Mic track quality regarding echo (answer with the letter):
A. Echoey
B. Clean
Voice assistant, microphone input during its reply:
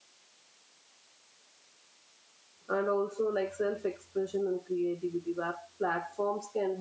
B